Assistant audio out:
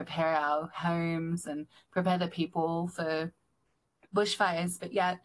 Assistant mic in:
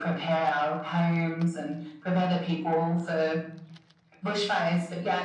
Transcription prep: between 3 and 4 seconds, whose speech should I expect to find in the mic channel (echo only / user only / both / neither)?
echo only